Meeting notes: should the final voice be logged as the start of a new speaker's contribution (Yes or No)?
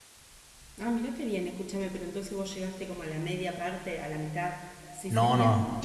Yes